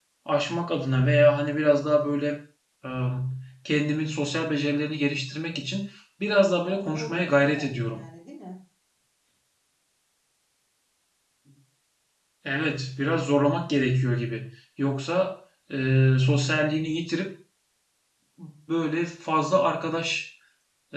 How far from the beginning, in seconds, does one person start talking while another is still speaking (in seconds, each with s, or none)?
6.7 s